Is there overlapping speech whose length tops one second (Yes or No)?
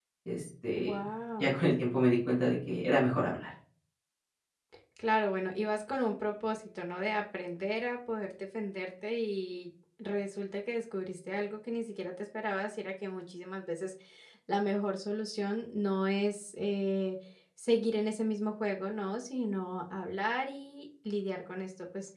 No